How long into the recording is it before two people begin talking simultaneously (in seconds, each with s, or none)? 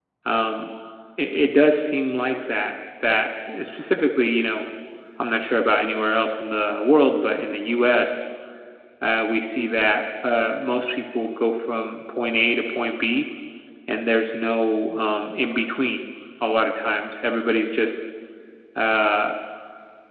none